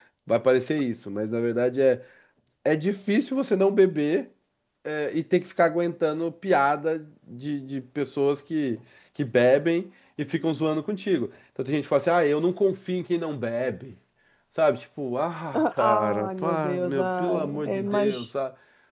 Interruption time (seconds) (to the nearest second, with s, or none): 16 s